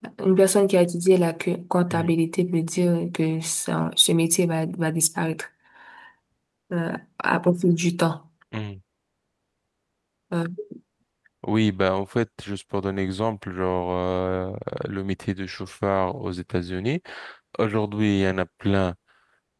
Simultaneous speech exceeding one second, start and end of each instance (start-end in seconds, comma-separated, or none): none